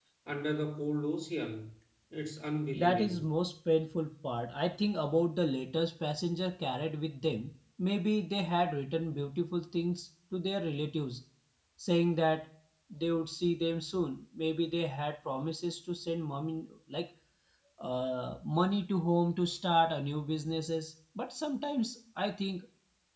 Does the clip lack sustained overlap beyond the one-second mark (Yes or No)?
Yes